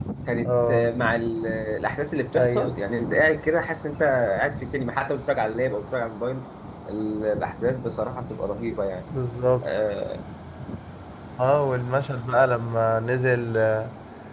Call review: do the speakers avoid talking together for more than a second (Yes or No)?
Yes